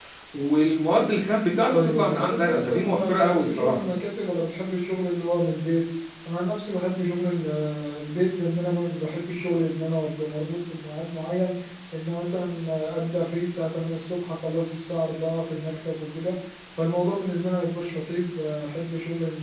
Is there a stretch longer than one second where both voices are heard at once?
Yes, from 1.7 s

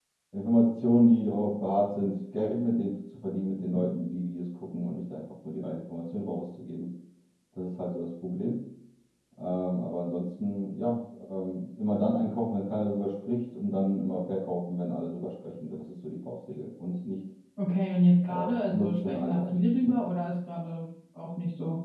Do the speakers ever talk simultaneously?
Yes, from 18.2 s

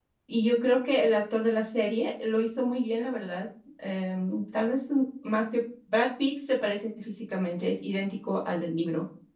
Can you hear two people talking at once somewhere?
No

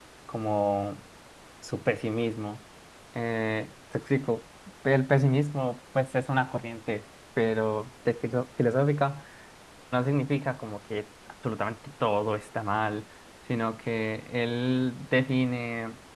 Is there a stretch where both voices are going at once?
No

